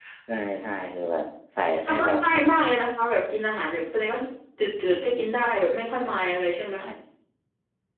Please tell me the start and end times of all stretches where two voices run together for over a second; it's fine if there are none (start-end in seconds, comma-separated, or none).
none